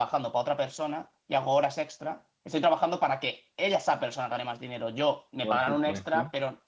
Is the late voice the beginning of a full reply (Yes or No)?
No